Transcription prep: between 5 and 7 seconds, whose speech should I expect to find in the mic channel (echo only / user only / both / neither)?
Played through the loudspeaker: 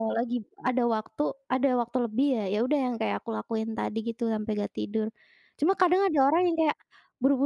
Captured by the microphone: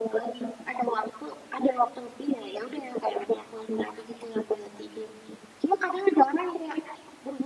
echo only